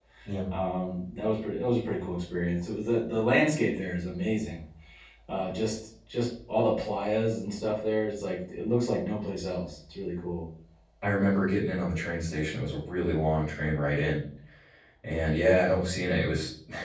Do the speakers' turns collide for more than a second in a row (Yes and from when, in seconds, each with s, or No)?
No